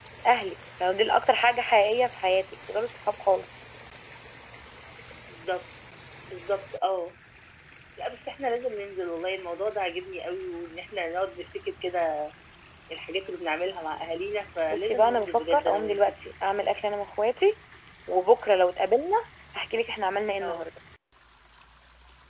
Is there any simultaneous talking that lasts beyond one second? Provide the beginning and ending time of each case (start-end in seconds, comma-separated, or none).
14.7-16.0